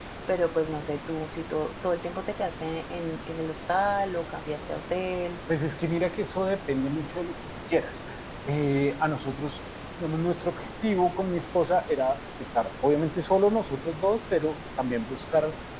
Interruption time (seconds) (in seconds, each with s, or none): none